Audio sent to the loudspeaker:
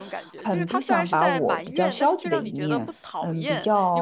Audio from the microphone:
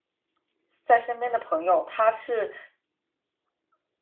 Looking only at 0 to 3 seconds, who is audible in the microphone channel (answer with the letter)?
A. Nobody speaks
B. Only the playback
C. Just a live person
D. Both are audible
C